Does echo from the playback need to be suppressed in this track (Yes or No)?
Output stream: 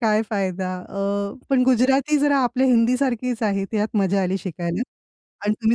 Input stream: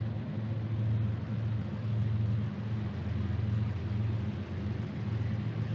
No